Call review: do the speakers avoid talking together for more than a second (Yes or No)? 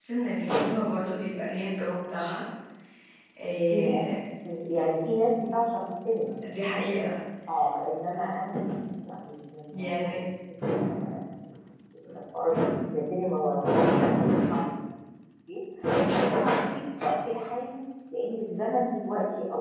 Yes